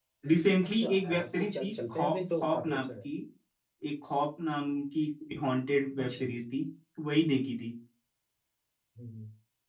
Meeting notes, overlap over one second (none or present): present